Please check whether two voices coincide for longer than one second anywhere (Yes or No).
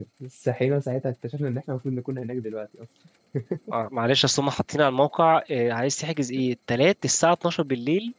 No